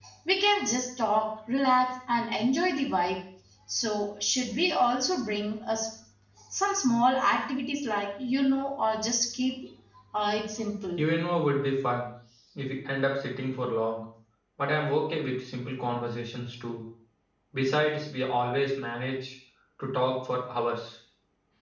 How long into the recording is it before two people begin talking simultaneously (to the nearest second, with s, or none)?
none